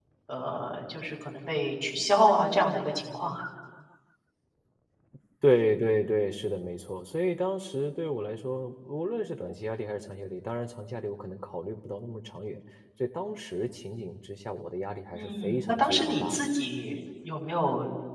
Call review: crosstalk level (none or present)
present